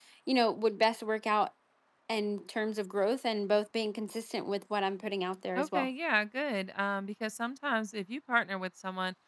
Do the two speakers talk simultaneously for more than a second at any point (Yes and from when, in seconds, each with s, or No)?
No